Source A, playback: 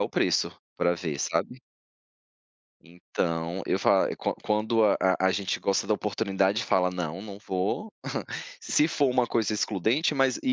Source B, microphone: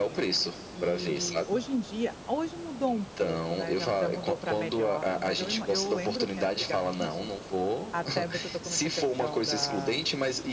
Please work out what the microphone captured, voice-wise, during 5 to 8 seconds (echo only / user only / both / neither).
both